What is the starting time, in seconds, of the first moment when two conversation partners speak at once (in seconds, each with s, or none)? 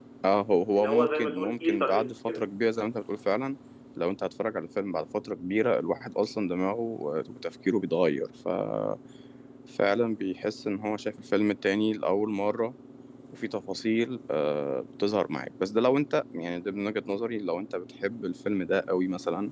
0.8 s